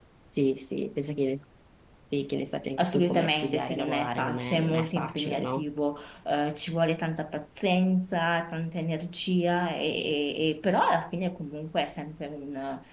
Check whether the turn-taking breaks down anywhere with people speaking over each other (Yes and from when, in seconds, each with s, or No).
Yes, from 2.8 s